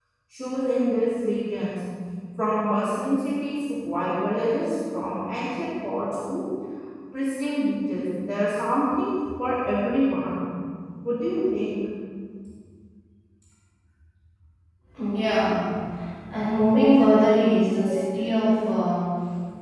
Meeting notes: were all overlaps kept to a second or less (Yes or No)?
Yes